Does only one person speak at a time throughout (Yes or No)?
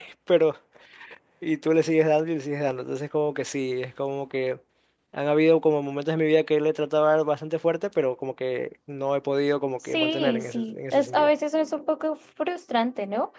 No